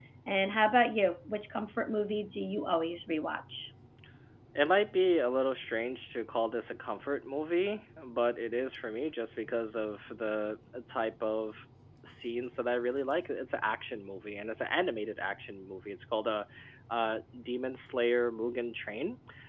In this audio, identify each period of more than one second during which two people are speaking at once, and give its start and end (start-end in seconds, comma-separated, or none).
none